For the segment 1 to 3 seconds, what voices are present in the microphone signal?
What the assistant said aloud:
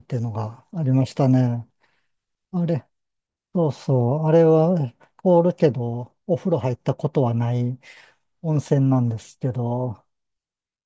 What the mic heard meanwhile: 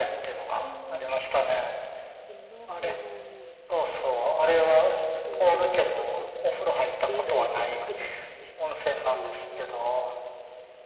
both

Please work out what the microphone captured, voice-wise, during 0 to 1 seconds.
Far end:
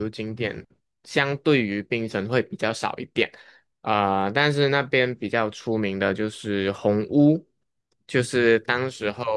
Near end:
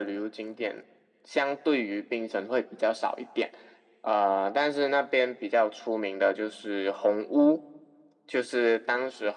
echo only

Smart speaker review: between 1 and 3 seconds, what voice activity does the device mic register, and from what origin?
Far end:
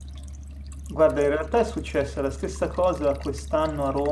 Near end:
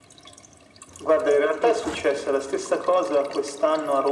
both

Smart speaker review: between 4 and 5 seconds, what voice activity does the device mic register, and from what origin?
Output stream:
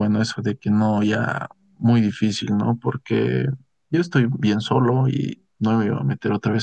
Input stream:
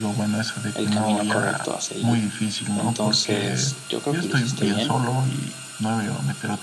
both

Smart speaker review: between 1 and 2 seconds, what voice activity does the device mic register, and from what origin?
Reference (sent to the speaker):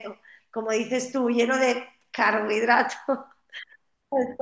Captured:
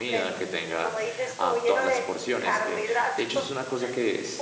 both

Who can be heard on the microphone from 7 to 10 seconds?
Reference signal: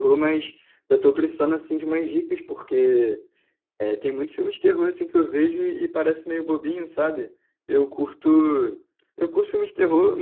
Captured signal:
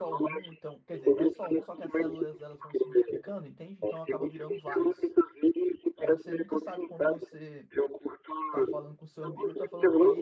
both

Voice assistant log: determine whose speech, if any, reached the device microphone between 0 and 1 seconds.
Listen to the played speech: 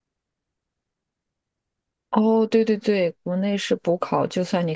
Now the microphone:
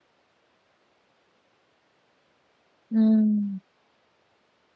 neither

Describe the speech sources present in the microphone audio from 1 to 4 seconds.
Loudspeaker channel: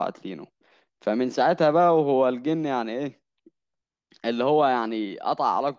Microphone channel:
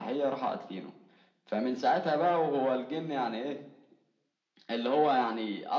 echo only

